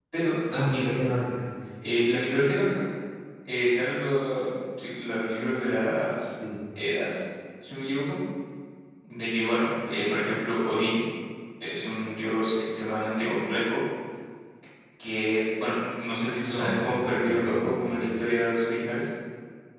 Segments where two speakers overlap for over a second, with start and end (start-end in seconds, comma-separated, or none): 16.4-18.0